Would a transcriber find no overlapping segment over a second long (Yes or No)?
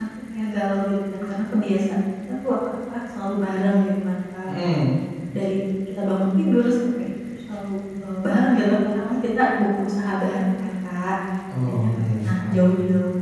No